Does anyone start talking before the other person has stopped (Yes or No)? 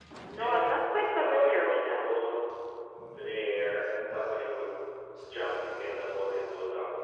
Yes